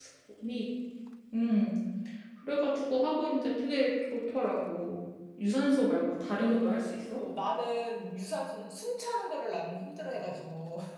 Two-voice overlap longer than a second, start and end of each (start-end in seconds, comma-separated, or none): none